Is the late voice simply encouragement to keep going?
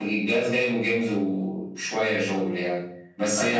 No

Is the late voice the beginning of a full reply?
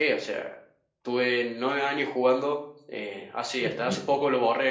No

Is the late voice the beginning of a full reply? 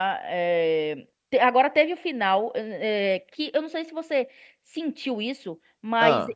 No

